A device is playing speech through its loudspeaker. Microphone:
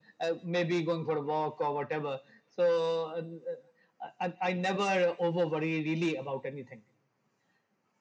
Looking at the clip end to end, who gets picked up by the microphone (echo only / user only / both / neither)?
echo only